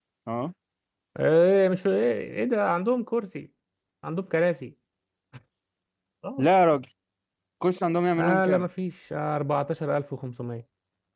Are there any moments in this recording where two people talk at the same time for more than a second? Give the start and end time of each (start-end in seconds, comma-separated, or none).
none